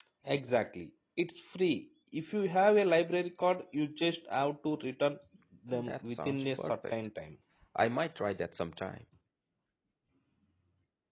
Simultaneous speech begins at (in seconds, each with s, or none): 5.7 s